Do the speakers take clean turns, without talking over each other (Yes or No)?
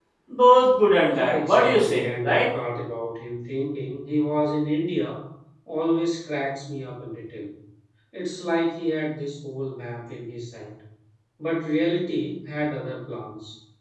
No